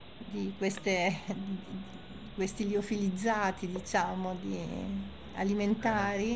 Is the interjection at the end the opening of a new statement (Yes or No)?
No